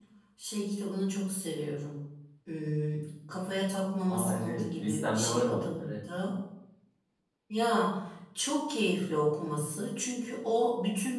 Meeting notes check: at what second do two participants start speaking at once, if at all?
4.1 s

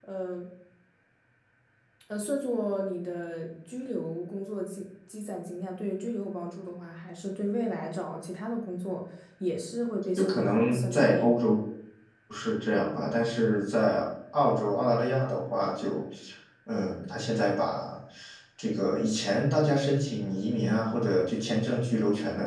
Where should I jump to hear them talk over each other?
10.2 s

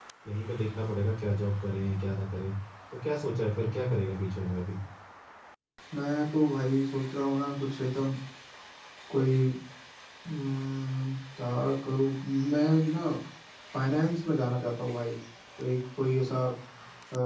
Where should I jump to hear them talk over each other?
none

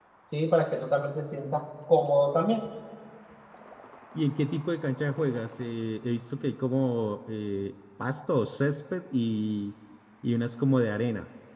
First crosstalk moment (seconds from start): none

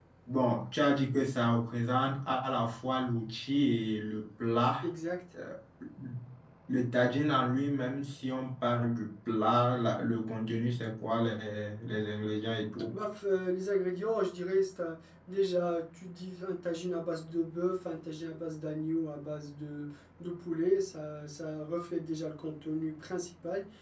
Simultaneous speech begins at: none

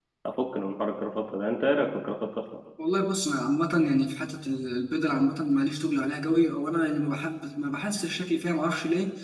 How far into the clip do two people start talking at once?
none

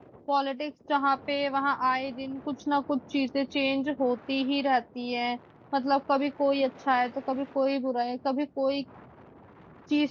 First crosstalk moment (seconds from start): none

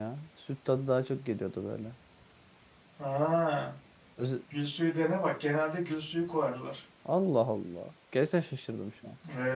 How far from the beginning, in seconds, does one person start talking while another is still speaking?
none

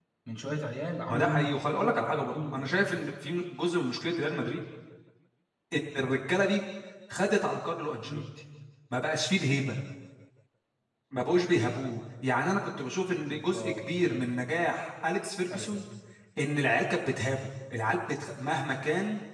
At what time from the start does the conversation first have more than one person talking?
1.1 s

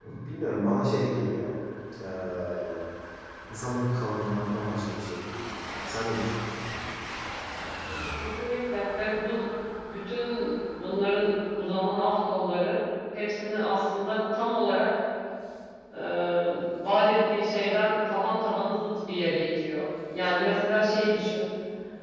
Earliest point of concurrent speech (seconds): none

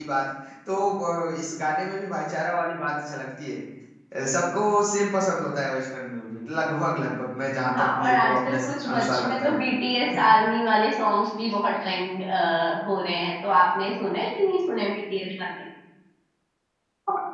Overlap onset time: 7.7 s

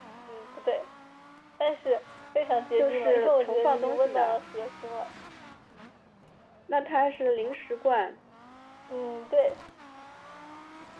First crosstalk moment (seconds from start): 2.8 s

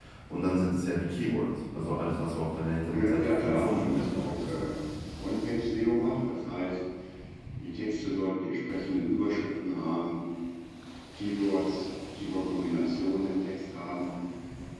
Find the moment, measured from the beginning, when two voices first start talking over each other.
2.9 s

